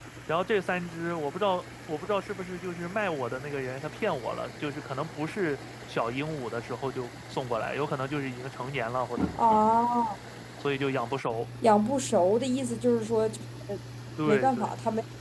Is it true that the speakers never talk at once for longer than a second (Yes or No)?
Yes